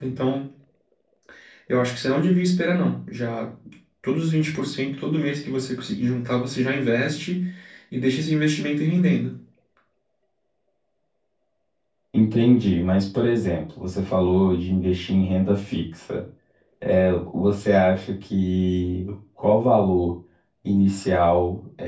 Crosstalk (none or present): none